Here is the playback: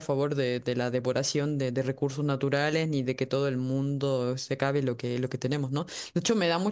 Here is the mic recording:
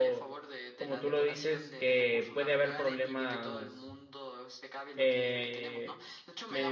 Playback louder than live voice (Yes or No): No